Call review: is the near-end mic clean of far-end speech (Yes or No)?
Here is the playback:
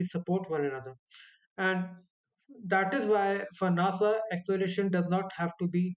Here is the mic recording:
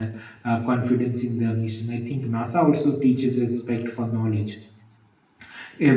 Yes